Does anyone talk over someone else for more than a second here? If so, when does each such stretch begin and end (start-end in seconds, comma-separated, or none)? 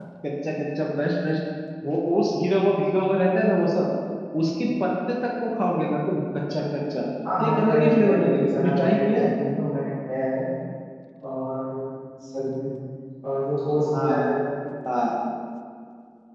7.4-9.3